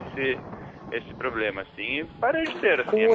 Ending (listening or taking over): taking over